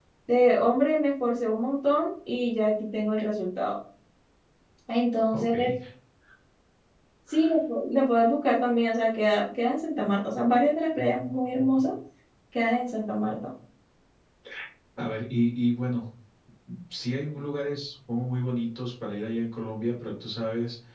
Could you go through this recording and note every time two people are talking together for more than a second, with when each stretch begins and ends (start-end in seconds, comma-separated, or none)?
none